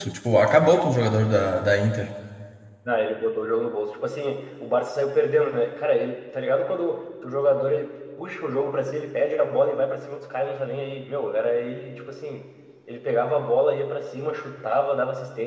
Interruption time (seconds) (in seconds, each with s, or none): none